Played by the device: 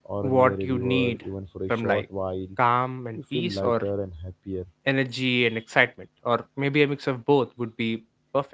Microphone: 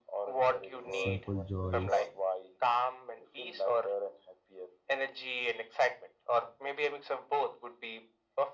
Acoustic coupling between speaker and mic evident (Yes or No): Yes